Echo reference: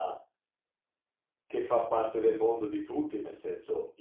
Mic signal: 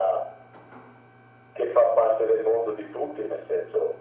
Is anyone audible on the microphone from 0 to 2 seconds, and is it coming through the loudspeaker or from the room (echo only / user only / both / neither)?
echo only